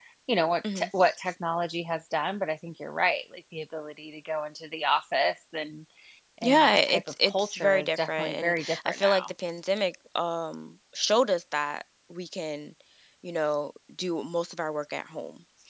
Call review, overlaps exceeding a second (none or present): present